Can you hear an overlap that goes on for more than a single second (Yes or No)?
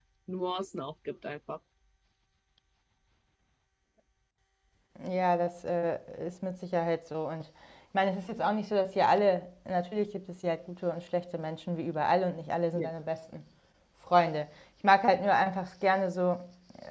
No